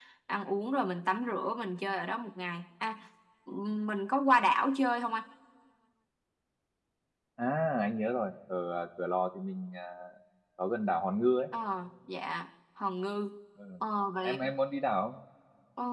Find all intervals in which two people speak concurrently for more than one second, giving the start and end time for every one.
none

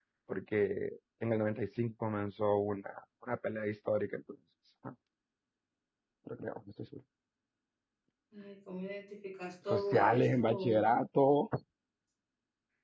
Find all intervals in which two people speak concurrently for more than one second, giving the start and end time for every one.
9.7-10.9

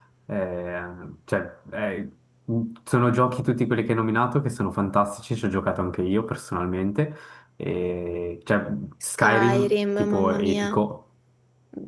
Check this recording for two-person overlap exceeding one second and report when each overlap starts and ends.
9.1-10.7

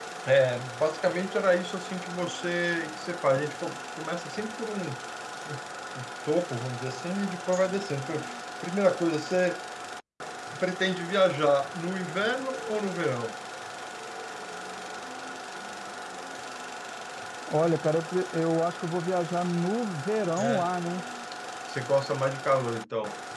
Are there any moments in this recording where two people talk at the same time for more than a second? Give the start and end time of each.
none

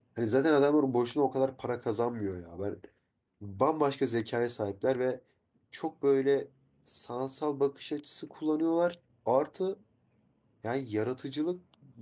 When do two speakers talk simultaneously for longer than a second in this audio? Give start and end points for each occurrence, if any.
none

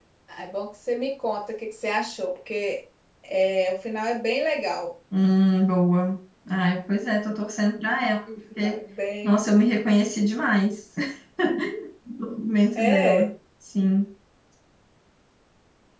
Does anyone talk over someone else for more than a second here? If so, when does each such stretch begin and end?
none

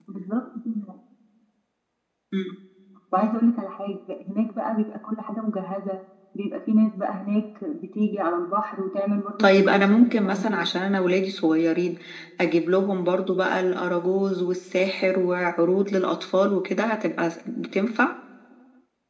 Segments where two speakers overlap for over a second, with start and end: 9.4-10.8

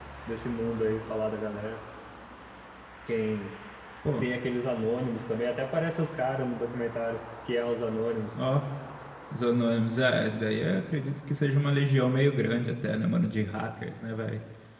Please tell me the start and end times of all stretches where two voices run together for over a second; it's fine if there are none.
none

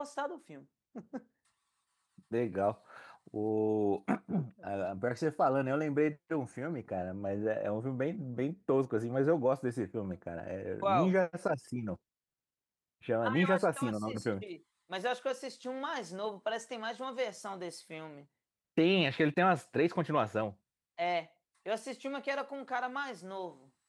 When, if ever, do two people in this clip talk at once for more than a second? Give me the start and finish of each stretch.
13.2-14.4

